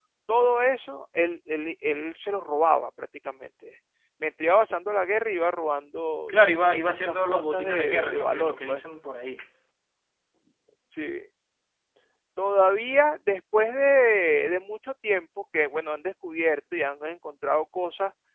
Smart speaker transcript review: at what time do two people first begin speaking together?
6.8 s

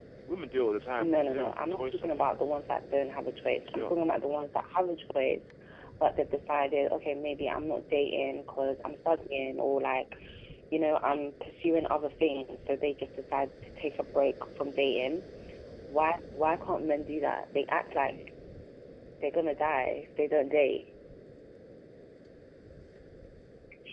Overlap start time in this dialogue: 1.0 s

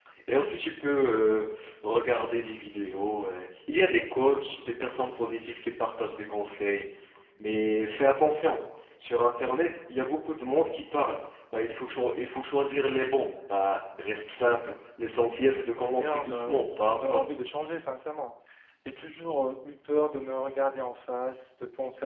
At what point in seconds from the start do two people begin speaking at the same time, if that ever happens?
15.8 s

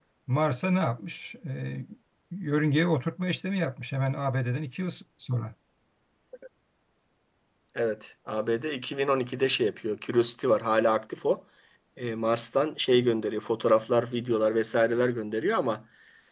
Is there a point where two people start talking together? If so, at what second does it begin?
none

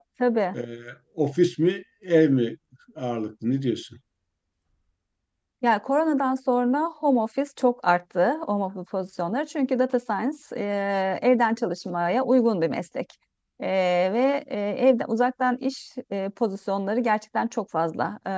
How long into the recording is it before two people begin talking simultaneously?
none

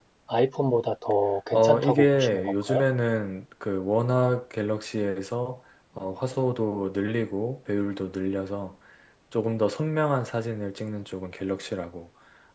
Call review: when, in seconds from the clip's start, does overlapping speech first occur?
1.5 s

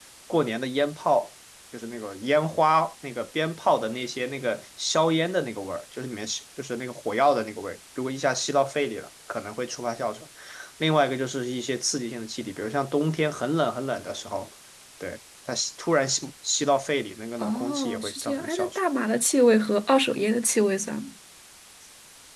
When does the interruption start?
17.4 s

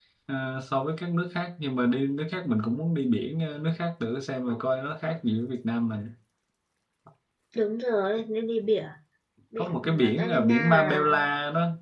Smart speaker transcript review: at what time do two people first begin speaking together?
9.6 s

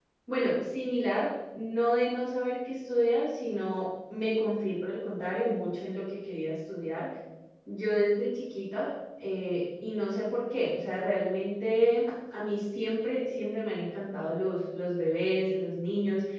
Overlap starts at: none

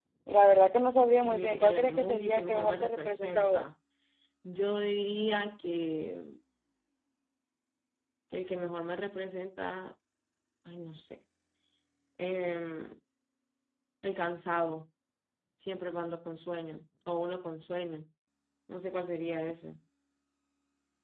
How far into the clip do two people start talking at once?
1.2 s

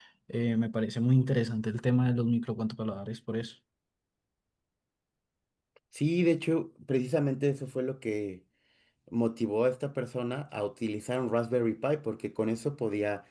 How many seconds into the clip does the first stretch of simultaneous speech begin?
none

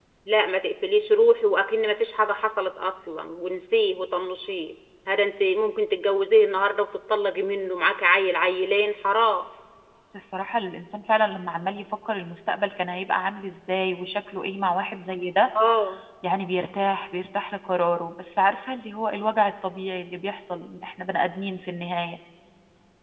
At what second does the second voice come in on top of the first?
none

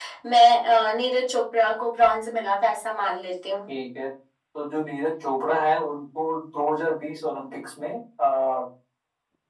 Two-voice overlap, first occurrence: none

